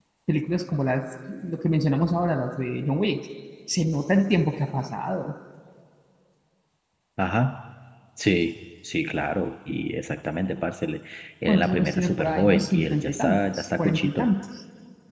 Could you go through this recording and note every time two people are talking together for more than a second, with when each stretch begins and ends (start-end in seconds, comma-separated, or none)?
11.4-14.3